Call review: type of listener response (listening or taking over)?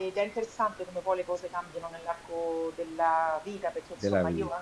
listening